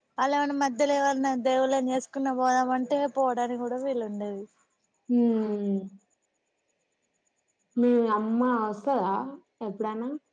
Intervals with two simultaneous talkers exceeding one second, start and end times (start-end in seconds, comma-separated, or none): none